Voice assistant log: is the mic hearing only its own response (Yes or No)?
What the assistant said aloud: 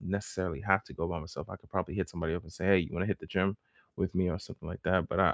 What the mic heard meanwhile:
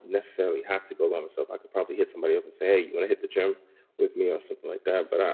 Yes